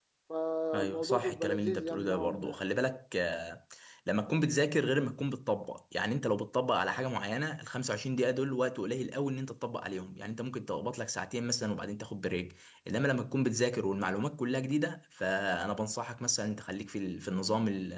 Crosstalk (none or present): present